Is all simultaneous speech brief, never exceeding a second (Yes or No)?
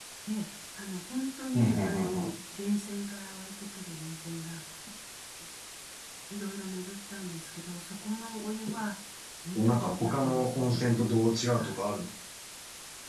No